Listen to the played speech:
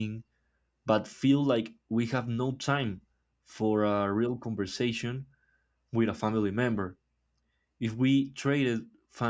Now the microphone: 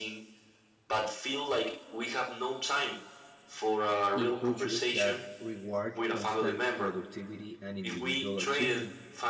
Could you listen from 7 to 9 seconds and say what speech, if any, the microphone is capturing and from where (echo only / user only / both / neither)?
both